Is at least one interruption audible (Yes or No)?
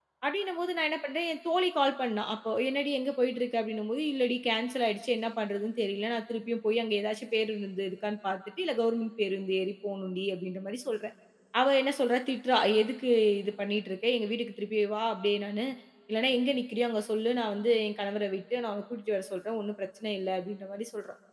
No